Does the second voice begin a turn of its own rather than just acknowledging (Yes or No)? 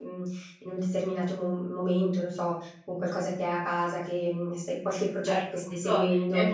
Yes